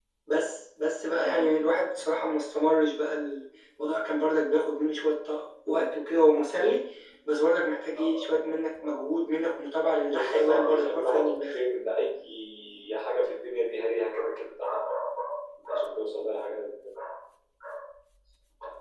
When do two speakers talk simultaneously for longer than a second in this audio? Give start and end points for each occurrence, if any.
10.1-11.5

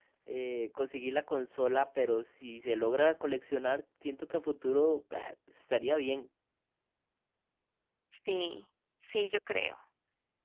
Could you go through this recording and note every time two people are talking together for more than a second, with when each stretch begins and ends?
none

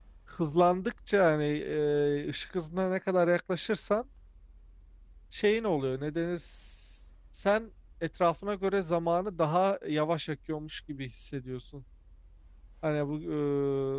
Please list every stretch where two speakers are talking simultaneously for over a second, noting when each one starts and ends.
none

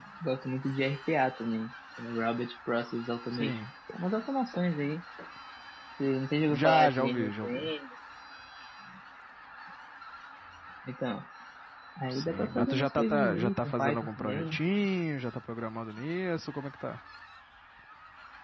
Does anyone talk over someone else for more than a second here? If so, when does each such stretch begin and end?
6.5-7.7, 12.1-14.6

